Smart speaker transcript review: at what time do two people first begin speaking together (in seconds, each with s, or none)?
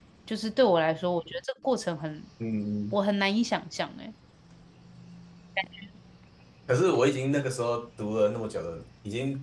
none